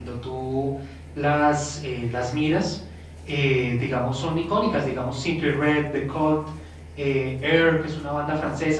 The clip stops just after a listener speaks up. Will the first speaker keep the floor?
Yes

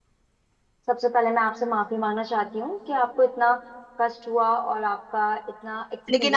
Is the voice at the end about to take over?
Yes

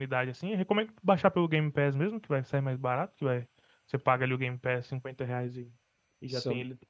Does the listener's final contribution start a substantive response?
No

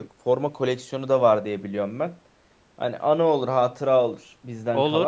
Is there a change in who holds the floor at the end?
Yes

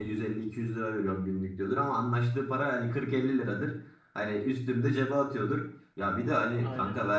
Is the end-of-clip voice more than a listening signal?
No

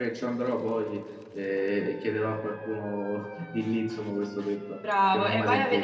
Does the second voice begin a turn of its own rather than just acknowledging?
Yes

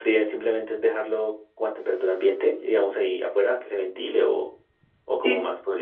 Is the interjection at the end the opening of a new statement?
Yes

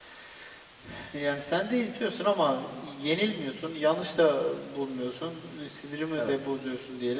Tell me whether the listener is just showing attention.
Yes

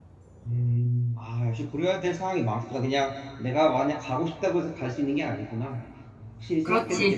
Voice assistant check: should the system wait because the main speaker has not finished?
No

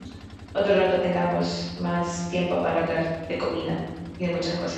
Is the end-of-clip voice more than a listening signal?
Yes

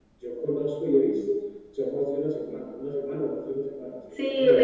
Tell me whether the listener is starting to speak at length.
Yes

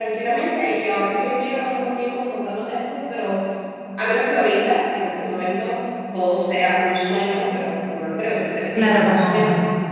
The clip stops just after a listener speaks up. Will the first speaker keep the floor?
No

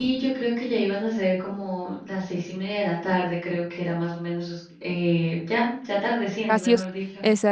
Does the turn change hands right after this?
Yes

